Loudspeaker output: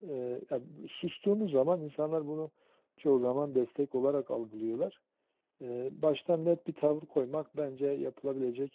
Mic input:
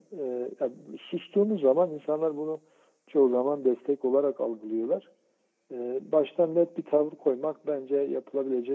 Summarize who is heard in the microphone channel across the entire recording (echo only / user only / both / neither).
echo only